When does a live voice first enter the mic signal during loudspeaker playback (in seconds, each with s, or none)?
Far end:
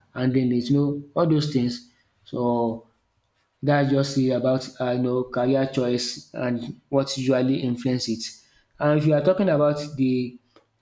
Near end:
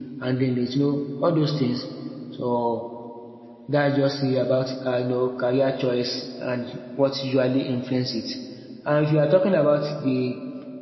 none